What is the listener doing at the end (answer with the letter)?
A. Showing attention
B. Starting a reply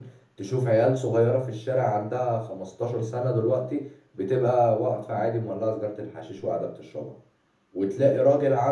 A